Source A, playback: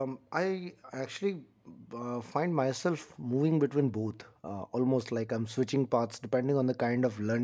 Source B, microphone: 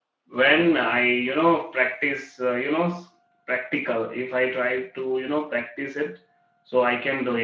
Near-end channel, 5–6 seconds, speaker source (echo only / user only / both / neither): user only